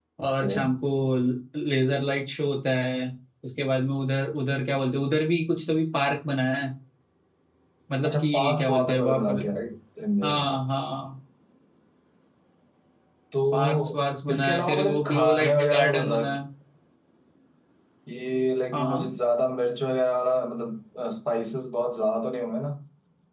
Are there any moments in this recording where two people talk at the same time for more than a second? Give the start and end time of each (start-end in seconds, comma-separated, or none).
8.0-9.4, 14.3-16.2